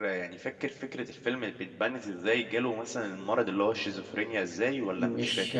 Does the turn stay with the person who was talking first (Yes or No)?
No